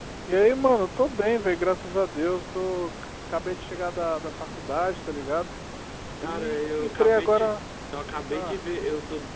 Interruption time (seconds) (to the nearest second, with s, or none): 6 s